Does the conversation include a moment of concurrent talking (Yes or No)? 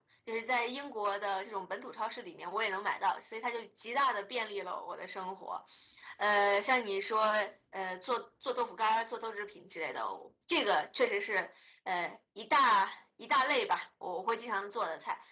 No